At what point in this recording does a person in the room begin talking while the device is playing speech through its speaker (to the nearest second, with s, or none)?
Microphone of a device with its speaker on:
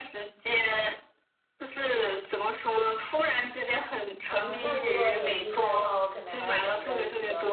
4 s